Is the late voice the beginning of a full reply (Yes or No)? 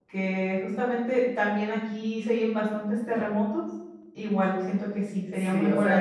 Yes